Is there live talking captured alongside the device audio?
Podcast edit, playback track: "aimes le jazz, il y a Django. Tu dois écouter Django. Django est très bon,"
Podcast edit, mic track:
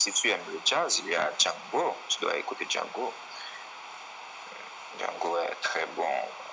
No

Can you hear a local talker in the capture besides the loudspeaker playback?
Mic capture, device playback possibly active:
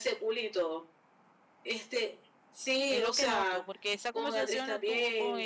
Yes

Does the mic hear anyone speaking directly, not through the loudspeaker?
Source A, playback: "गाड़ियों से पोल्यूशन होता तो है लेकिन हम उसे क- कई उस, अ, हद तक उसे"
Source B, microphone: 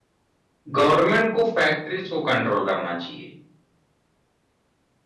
Yes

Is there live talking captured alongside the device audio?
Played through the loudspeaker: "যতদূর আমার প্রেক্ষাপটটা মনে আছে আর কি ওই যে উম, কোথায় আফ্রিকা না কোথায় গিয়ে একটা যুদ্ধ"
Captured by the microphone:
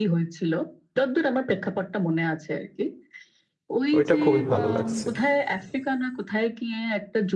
Yes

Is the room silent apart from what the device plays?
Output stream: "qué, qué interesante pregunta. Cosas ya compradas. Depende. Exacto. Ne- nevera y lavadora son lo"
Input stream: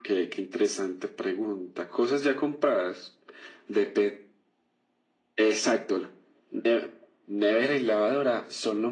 Yes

